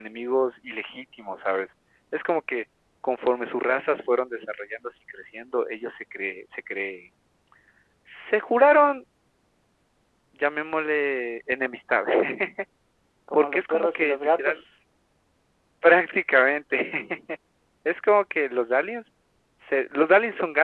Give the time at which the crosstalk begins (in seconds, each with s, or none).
13.3 s